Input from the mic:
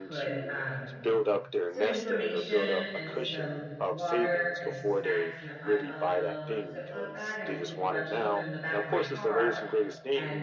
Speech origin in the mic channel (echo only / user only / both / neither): both